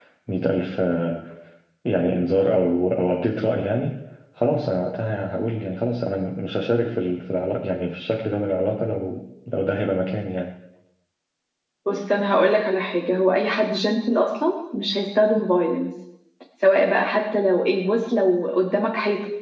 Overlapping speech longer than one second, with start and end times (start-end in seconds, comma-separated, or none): none